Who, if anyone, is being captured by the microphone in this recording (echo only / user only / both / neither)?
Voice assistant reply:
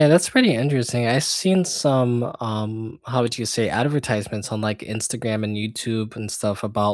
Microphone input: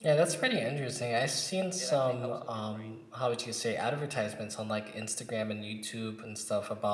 both